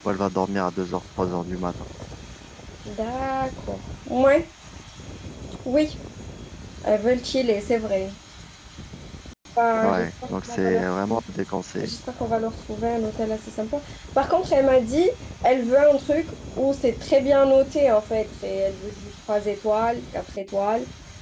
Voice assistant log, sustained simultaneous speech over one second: present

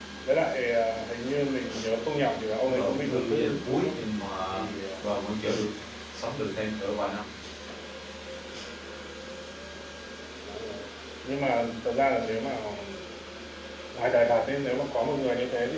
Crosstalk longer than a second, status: present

